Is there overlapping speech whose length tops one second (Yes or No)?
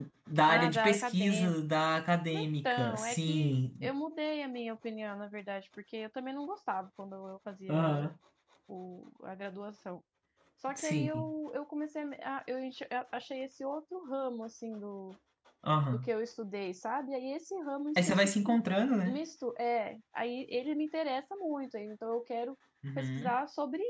Yes